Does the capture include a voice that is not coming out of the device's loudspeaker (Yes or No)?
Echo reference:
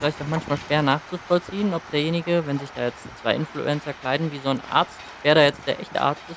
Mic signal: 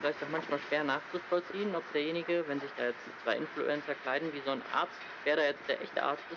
No